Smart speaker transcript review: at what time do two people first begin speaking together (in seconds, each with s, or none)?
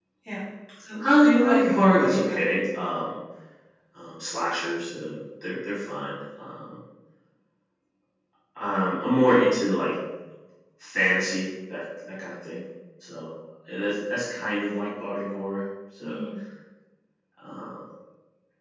1.0 s